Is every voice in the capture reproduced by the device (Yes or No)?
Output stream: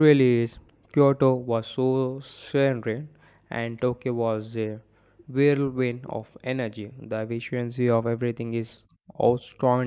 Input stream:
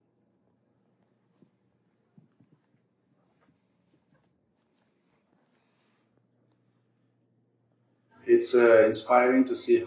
No